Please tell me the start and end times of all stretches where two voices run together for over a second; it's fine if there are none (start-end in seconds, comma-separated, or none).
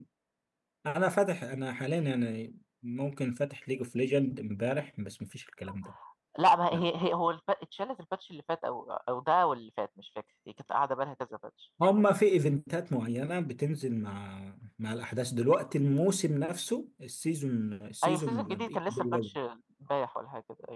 18.0-19.3